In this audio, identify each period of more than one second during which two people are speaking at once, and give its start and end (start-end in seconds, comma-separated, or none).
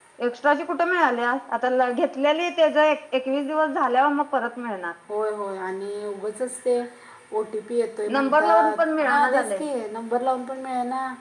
8.1-9.6